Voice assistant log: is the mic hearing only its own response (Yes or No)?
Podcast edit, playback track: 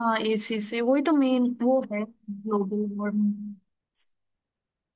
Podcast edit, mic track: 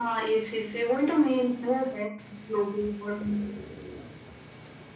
Yes